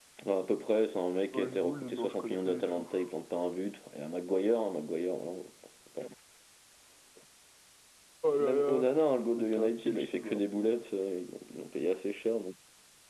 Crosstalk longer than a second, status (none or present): present